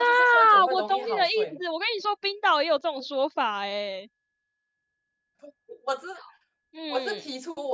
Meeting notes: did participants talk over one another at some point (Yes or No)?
Yes